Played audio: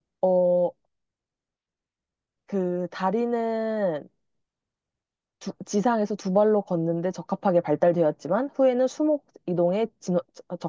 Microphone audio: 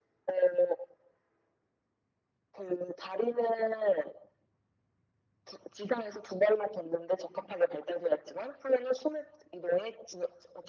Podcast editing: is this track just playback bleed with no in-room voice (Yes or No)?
Yes